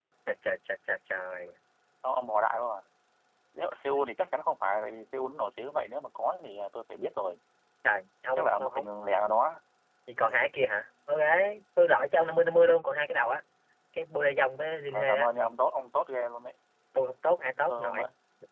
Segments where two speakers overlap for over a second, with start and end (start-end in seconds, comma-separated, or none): none